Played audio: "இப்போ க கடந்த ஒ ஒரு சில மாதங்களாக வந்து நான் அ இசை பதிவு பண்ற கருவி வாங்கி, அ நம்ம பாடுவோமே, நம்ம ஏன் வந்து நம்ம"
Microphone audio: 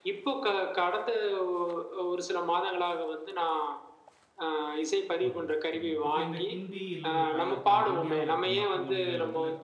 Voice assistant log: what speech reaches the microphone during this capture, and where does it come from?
both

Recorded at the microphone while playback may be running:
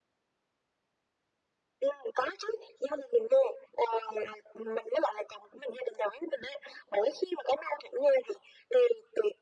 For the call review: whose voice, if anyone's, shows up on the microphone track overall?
echo only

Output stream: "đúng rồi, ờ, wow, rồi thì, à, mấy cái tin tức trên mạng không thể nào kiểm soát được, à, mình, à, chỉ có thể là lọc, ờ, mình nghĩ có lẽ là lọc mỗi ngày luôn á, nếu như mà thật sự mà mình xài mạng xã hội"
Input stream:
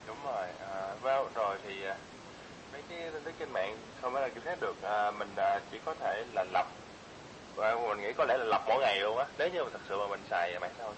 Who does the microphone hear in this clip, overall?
echo only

